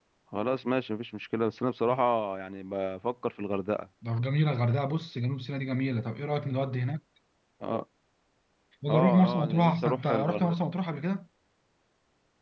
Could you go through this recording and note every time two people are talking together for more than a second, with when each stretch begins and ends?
8.9-10.6

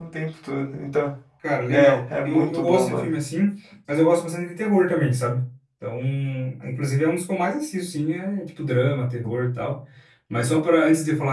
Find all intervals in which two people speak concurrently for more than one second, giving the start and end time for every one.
1.7-3.1

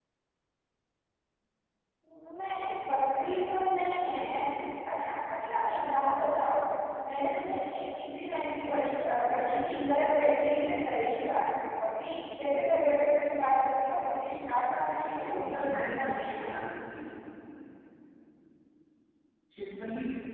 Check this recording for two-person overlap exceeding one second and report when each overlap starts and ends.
14.5-16.4

